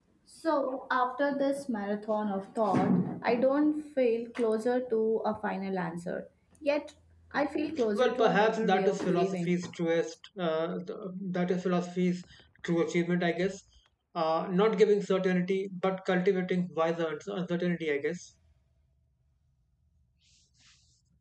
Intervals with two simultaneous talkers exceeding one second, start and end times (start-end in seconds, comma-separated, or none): 7.9-9.6